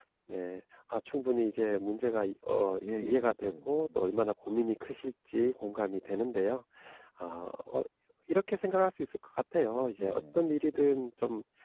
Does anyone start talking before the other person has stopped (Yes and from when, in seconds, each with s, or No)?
Yes, from 2.8 s